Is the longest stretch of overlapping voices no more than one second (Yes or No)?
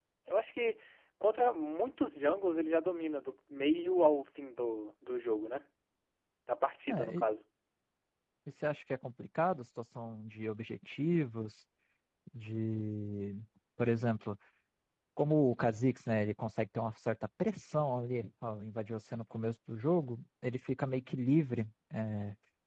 Yes